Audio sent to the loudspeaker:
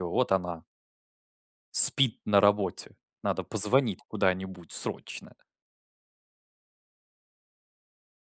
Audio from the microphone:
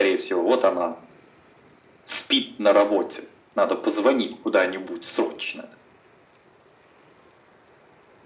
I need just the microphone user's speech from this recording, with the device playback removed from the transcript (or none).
none